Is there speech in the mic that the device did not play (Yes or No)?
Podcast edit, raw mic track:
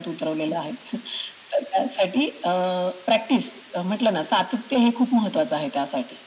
No